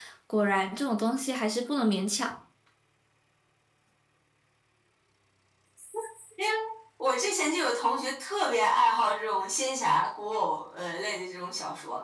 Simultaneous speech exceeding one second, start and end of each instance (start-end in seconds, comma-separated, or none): none